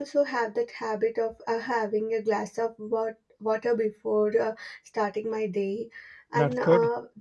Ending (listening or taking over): listening